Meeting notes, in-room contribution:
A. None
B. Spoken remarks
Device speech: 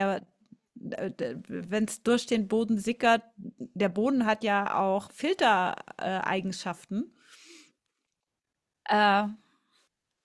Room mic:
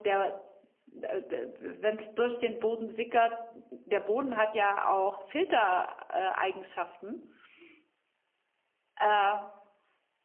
A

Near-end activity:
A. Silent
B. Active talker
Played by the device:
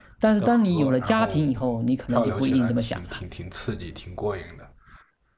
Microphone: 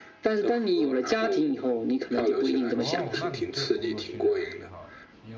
B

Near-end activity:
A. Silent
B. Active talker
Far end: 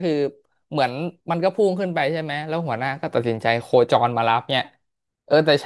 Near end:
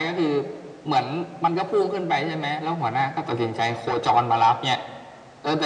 A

